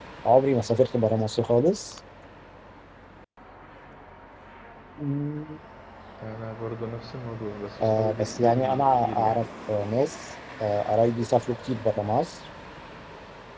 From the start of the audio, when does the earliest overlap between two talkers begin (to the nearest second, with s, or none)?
8 s